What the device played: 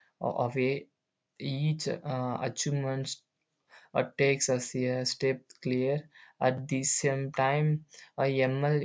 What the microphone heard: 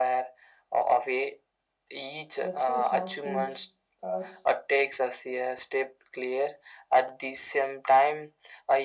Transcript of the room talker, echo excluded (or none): That's why smartphones, cars,